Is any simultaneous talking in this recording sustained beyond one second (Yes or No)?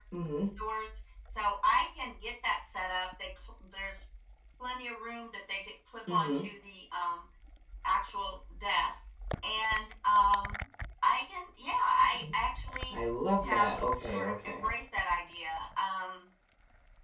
Yes